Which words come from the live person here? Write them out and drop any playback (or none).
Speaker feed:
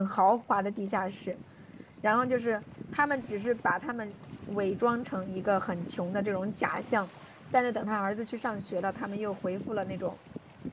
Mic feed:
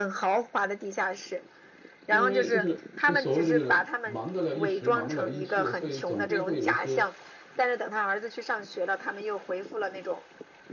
因为就是就所谓的就是忙得了一时，忙不了一世，所以总会会有一些